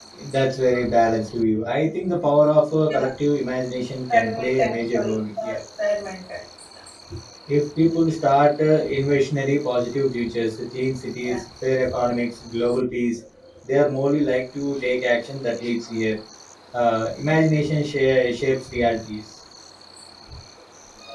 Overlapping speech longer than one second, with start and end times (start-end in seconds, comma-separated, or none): 4.1-5.6